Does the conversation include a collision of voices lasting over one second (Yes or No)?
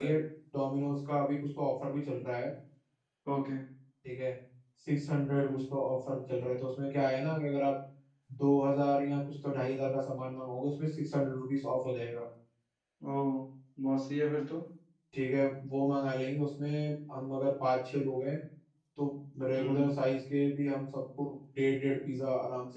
No